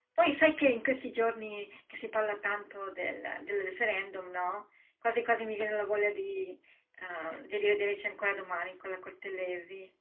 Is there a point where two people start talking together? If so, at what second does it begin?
none

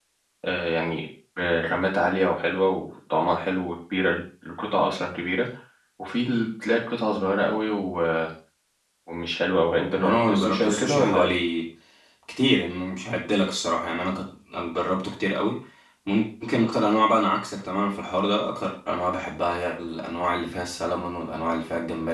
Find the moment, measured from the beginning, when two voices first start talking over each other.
10.0 s

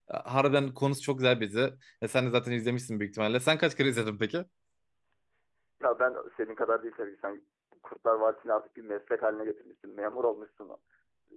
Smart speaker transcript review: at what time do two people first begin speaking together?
none

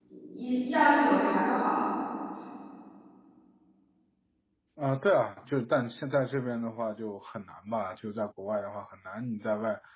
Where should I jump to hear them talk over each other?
none

